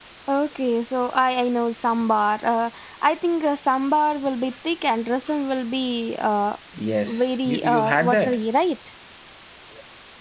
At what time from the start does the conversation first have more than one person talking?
7.1 s

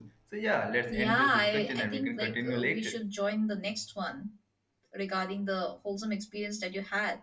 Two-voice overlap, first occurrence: 0.9 s

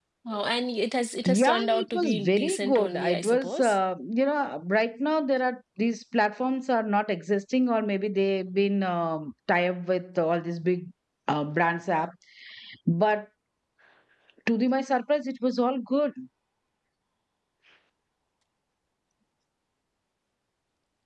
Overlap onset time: 1.2 s

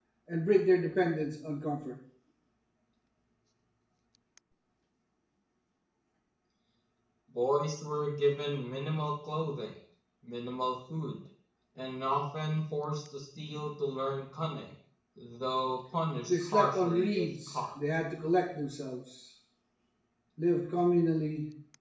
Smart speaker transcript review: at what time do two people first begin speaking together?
16.3 s

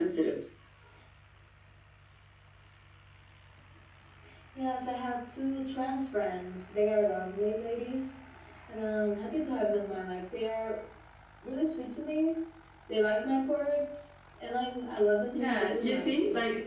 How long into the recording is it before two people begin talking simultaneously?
15.3 s

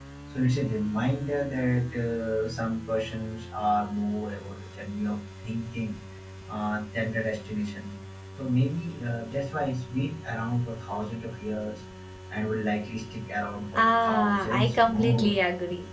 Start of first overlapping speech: 13.7 s

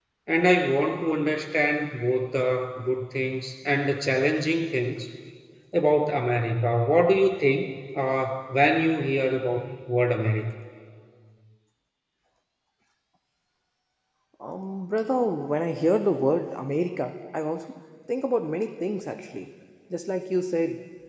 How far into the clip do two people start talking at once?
none

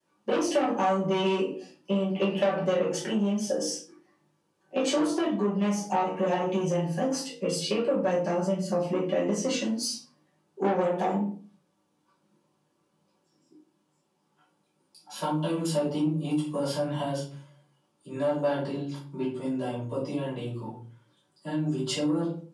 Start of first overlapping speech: none

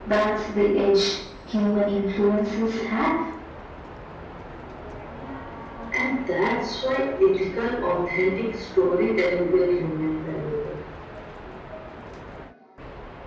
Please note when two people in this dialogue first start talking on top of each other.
none

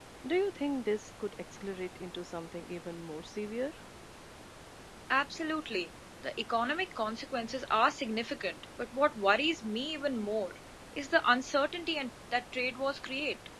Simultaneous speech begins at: none

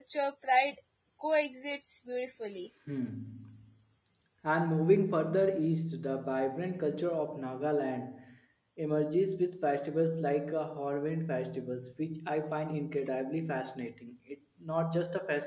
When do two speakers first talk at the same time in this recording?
none

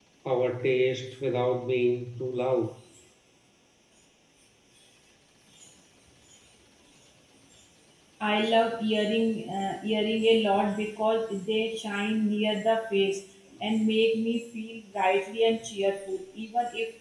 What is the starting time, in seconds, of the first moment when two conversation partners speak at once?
none

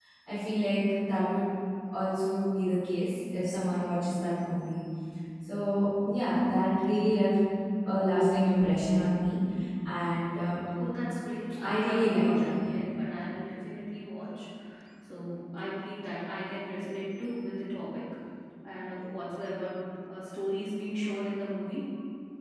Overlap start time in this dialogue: 11.6 s

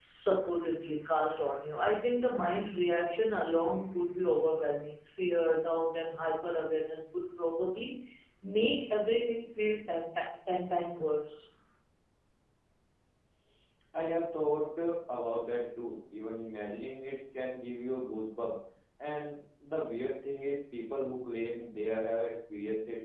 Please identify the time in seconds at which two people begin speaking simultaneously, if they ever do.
none

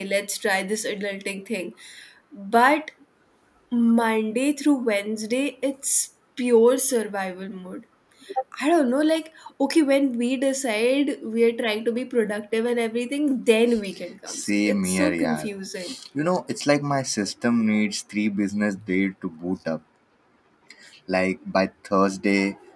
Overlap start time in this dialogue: 14.3 s

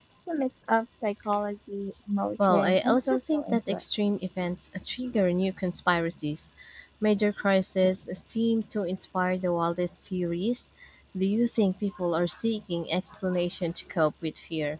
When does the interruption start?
2.4 s

